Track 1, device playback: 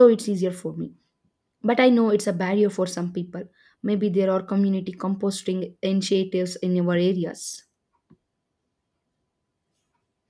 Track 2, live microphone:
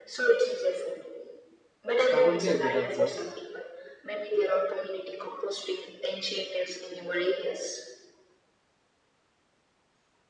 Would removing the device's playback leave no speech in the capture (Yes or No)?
No